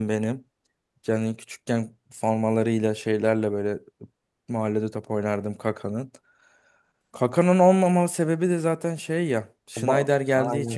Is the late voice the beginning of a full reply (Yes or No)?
No